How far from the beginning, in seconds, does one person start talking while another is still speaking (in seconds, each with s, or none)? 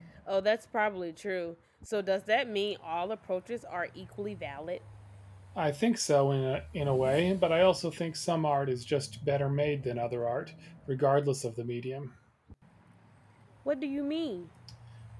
none